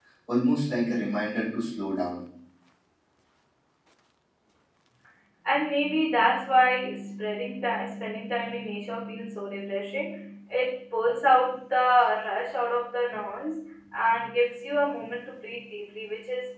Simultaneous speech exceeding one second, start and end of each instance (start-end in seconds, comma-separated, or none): none